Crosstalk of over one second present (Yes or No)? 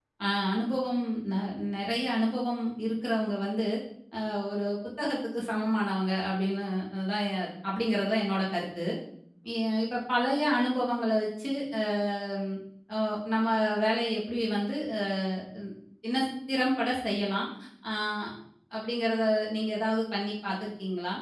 No